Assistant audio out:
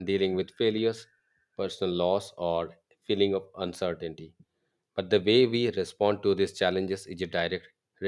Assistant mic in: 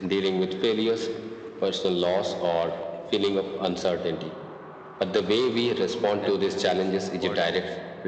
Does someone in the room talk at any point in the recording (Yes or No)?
Yes